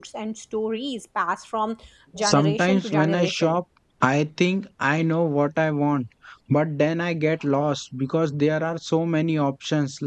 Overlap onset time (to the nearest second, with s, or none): 2 s